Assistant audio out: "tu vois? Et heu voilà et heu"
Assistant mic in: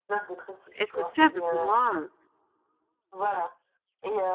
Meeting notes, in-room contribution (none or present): present